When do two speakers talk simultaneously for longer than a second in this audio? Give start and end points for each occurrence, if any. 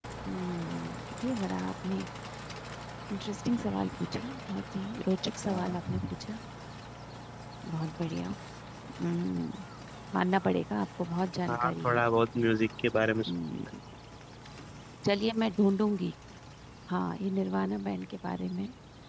none

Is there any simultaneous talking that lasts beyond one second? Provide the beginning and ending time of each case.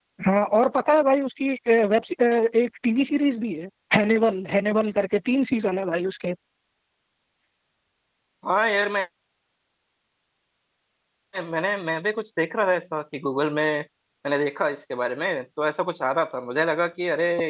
none

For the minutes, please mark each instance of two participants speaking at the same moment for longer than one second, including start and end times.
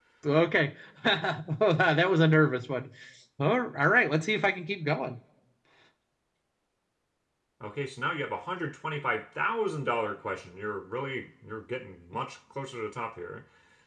none

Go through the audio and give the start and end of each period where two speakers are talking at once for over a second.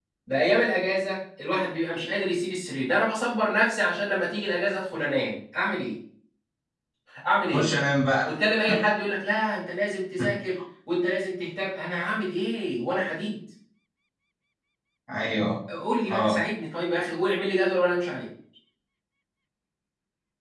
none

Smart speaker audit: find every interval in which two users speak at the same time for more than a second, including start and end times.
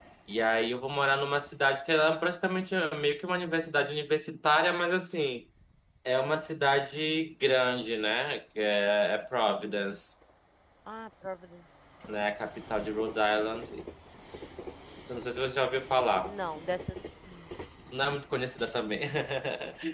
none

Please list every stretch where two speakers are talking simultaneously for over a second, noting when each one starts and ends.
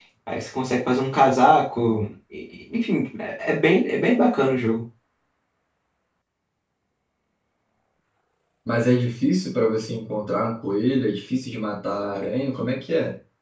none

